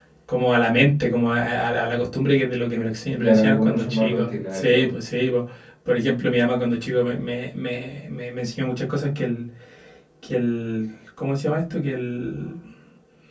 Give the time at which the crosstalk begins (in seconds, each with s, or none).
3.1 s